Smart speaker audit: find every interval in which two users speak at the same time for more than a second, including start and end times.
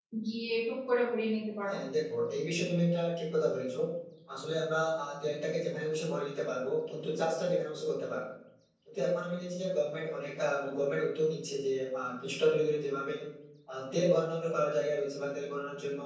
none

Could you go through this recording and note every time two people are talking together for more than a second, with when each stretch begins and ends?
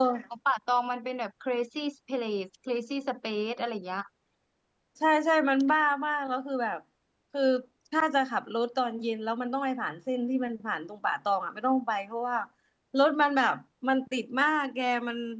none

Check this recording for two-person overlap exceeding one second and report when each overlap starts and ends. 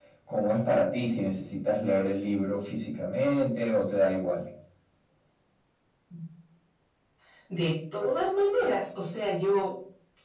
none

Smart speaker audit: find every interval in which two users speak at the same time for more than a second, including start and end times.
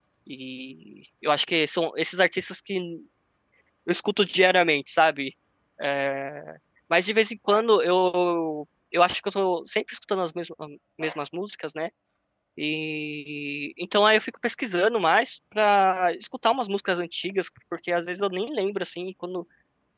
none

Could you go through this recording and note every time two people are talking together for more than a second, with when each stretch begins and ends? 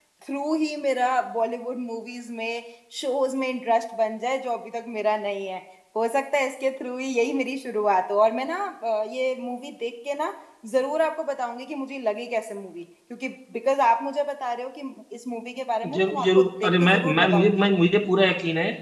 15.9-17.5

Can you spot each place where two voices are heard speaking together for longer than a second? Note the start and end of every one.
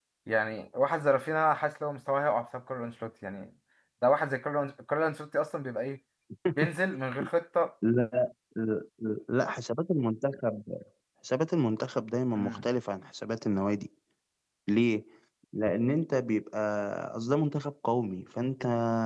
none

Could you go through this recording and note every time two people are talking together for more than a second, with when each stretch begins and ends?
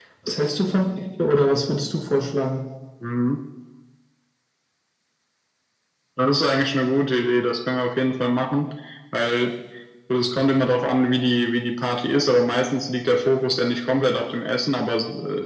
none

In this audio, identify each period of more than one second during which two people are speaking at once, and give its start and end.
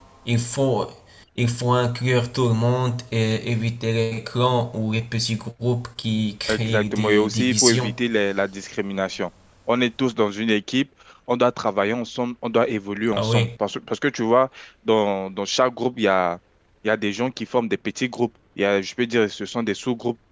6.5-7.9

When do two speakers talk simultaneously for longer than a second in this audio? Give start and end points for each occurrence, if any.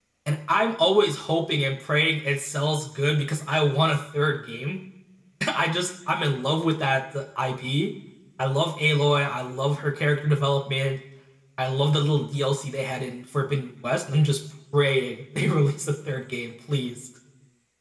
none

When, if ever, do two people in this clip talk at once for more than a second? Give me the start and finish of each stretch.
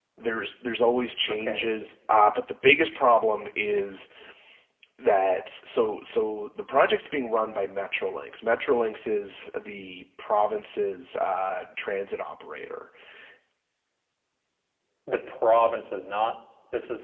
none

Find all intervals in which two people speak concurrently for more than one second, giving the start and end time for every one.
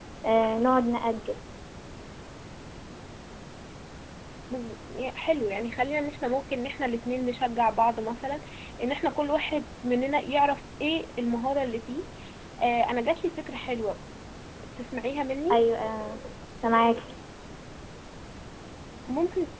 none

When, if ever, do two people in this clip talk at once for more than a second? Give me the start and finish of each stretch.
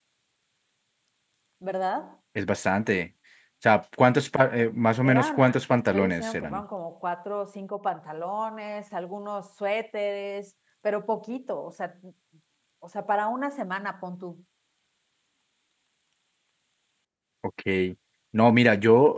5.0-6.6

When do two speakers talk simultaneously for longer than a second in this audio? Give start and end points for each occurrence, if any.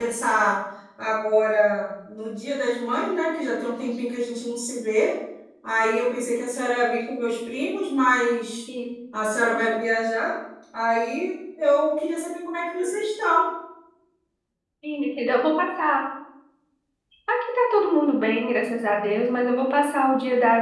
none

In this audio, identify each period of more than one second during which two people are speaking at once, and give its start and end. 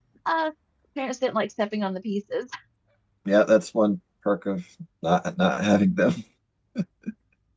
none

